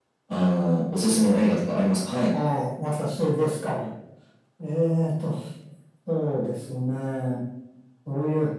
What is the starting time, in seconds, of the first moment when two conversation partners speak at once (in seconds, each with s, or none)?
none